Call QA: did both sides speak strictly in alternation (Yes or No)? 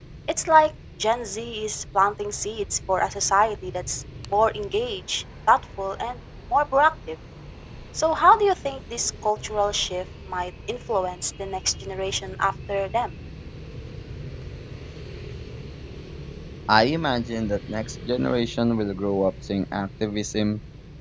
Yes